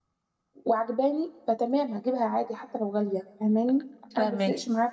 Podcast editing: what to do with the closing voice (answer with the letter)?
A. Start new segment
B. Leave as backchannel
B